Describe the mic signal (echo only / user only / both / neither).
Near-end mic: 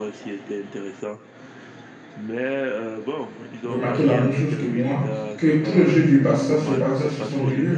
both